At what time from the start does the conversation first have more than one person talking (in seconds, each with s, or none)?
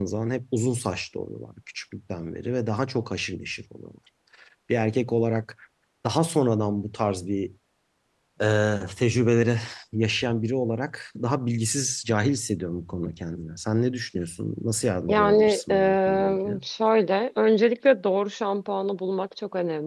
15.1 s